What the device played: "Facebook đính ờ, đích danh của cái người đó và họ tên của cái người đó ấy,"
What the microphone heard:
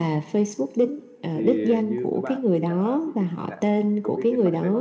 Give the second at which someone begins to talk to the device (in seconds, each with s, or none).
1.3 s